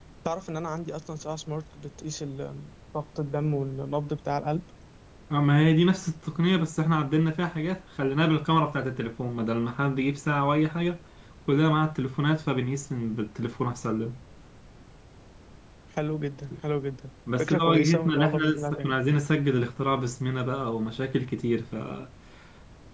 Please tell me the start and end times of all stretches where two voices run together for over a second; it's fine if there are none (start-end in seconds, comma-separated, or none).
17.4-18.9